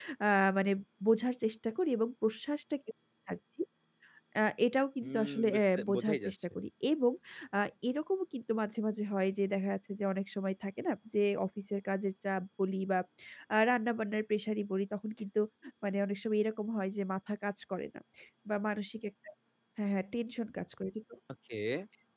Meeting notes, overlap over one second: present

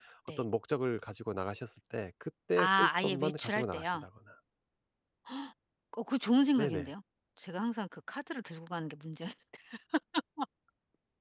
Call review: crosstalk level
present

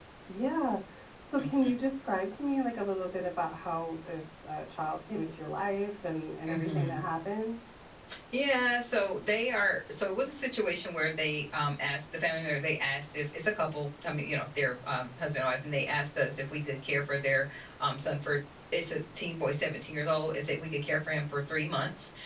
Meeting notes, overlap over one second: none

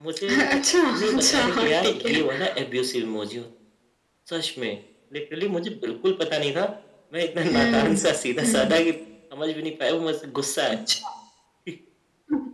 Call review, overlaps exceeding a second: present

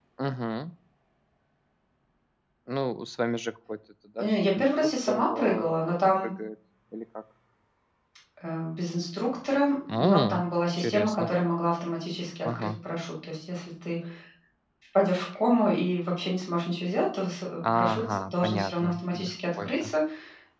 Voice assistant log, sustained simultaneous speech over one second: present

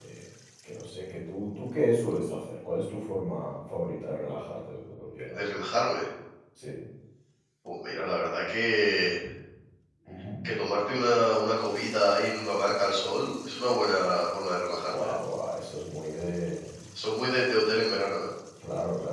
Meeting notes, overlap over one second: none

